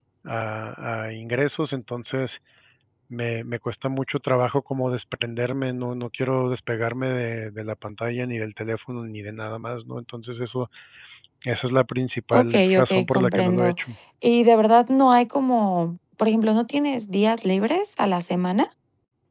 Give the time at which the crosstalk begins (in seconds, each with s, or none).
12.3 s